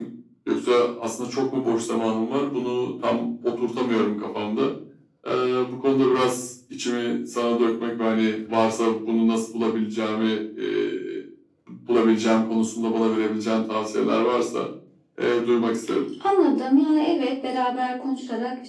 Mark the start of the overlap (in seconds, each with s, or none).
none